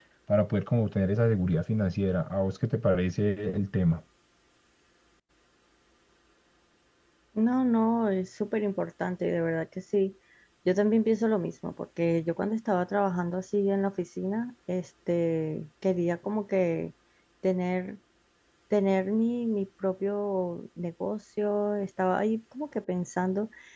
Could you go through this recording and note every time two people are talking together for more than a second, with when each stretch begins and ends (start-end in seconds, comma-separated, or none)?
none